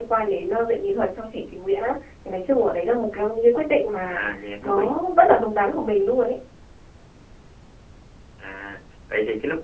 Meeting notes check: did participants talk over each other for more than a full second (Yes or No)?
No